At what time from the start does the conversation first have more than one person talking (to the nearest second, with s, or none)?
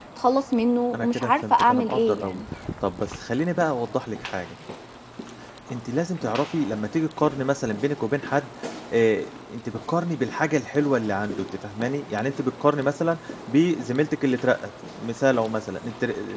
1 s